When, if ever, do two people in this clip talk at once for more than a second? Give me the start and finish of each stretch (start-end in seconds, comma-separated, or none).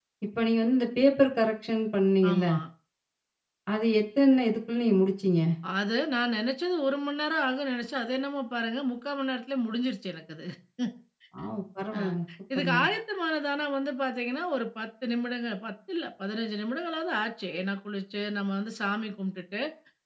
none